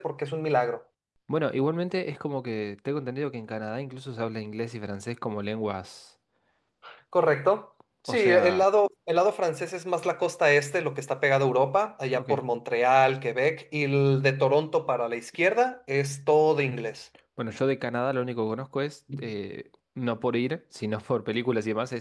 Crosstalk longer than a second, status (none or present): none